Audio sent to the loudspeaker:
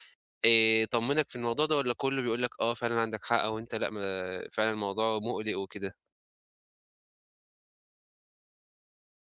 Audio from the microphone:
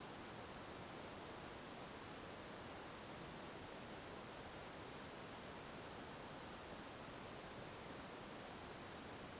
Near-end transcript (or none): none